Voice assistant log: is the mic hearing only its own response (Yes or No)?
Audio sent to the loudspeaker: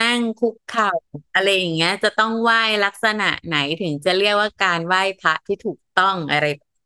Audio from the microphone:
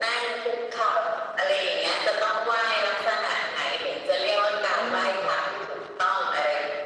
No